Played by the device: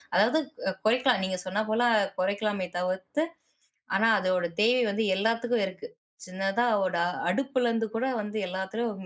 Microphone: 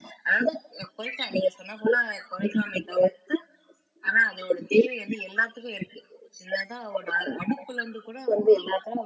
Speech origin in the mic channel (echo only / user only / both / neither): echo only